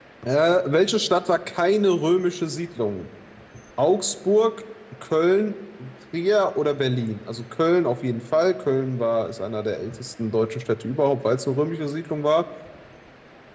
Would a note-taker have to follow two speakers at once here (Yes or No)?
No